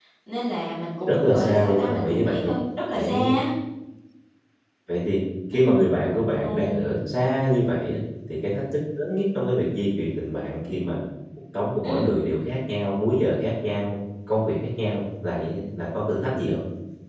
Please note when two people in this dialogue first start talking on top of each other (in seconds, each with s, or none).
1.1 s